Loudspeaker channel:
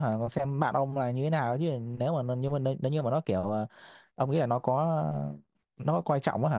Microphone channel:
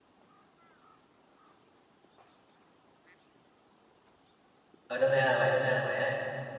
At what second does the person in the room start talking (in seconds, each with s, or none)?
4.9 s